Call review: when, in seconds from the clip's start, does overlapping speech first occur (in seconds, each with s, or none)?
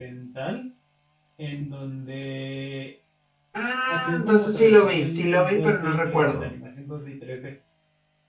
3.9 s